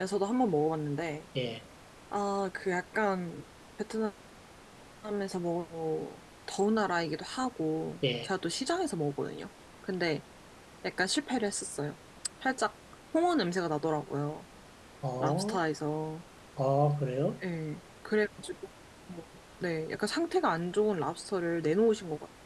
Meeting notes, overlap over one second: none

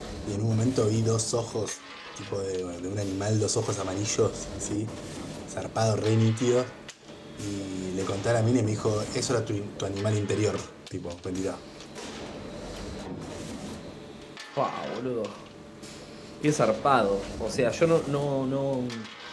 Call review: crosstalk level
none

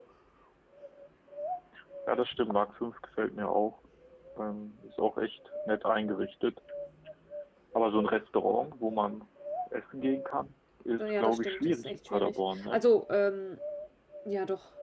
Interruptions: present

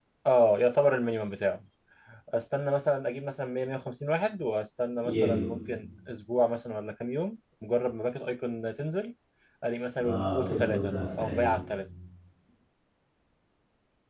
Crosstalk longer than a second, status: present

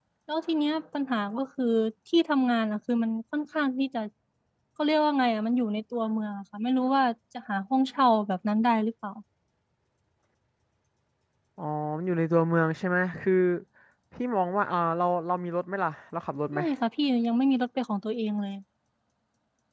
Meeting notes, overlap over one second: none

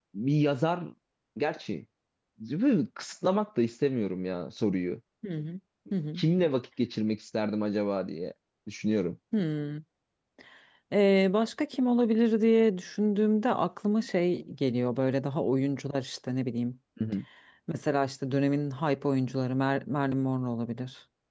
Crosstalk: none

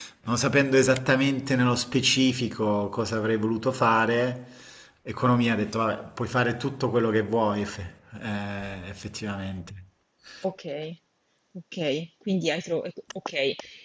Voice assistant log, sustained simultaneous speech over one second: none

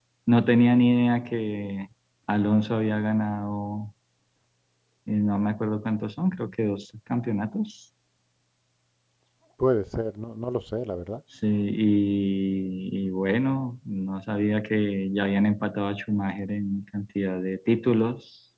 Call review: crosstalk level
none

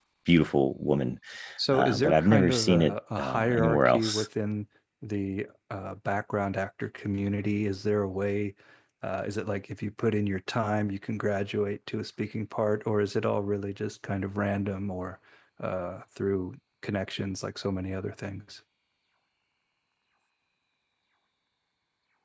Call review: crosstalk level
present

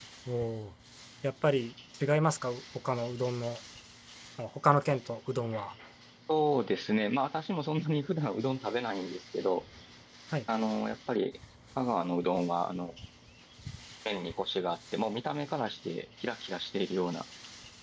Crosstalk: none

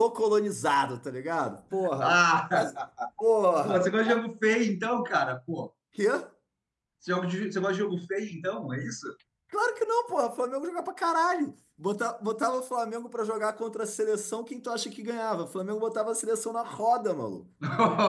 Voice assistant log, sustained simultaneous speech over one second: none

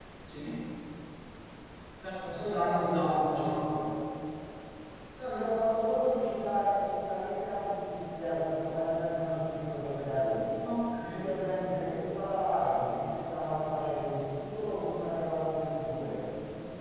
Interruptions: present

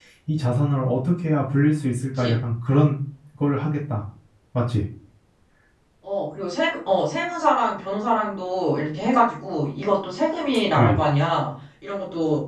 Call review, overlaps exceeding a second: none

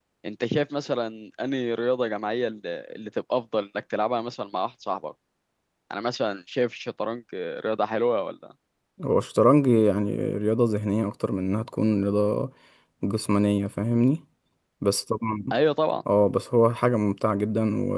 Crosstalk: none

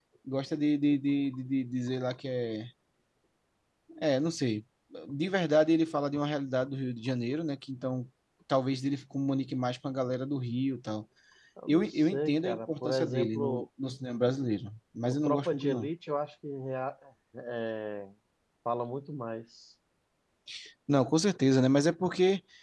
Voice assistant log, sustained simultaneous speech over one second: present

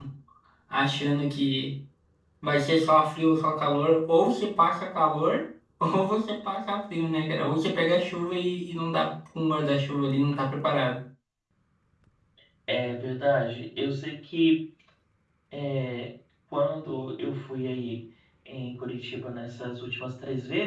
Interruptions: none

